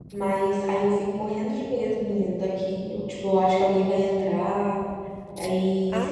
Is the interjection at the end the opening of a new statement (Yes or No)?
Yes